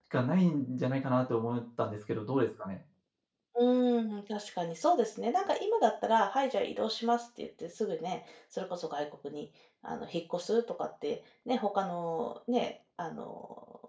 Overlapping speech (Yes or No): No